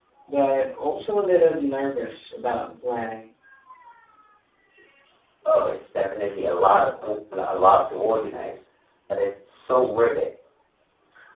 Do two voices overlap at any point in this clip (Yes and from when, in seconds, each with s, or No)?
No